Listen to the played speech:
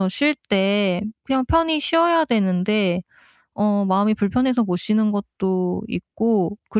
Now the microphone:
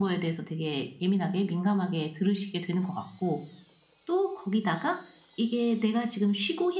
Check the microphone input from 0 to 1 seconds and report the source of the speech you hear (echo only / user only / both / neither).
user only